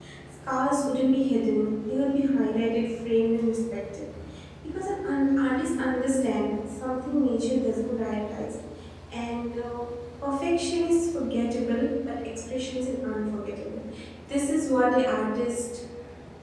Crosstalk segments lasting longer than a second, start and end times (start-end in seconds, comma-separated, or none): none